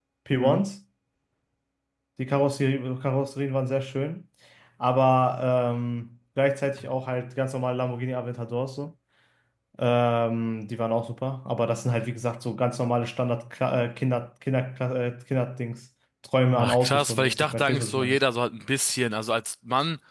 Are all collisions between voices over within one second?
No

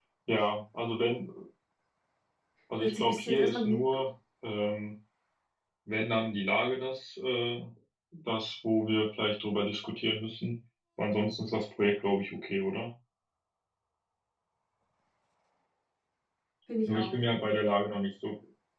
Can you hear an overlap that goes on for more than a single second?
Yes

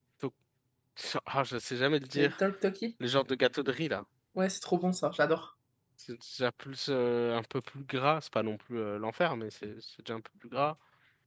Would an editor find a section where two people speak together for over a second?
No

